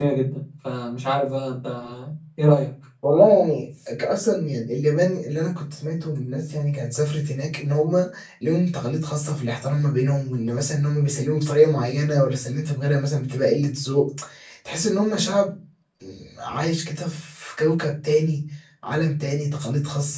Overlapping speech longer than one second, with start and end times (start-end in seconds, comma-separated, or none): none